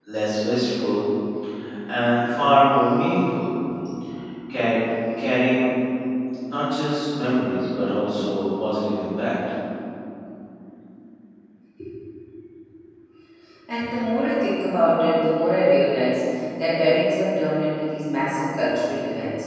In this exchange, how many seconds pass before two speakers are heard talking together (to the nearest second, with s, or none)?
none